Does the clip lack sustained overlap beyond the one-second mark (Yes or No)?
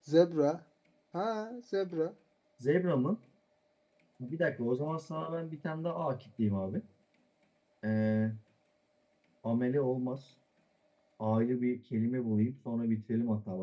Yes